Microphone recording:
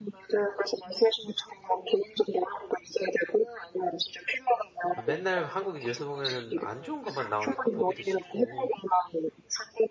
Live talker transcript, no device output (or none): 아 맨날 한국 뉴스 보면은 안 좋은 것만 나오니까 보기도 싫고